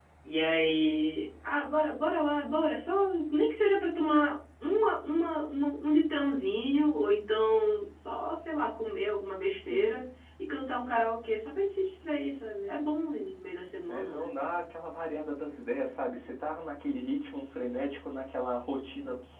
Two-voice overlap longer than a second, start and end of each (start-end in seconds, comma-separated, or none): none